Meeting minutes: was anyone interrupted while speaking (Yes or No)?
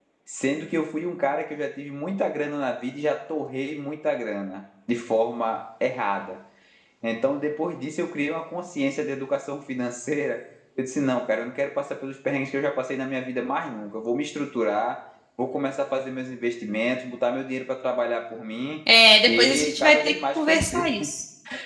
Yes